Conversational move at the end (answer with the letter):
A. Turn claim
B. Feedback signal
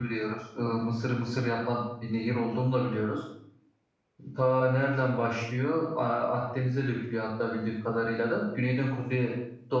B